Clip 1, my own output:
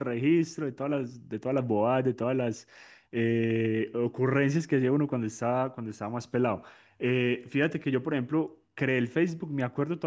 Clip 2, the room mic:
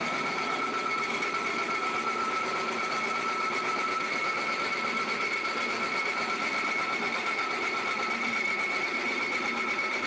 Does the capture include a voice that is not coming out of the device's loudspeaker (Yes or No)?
No